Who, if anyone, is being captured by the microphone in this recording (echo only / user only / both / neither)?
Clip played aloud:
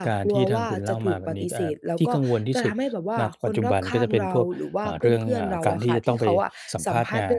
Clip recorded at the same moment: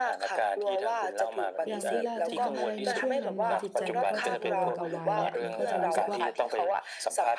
both